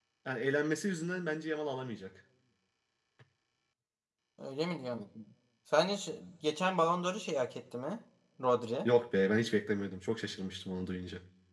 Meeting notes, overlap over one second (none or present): none